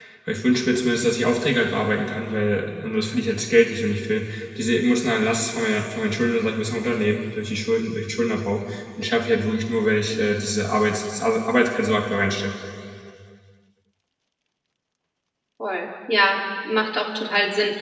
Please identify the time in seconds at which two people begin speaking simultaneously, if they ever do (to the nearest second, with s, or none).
none